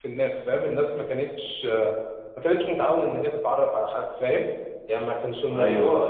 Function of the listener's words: taking over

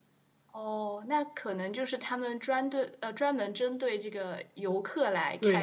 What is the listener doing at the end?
taking over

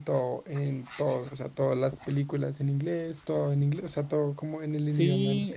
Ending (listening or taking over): taking over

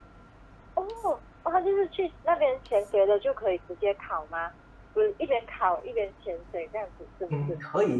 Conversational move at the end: taking over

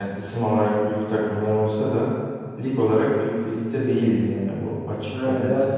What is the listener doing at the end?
taking over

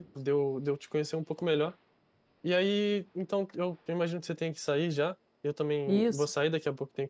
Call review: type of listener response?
listening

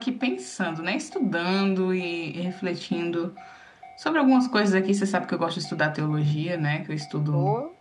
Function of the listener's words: taking over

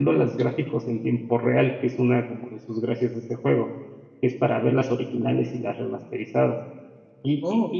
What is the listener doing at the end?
listening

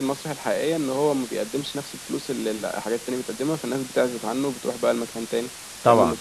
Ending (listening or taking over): taking over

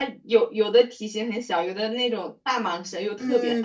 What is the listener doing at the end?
taking over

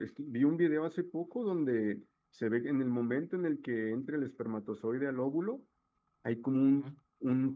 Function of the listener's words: listening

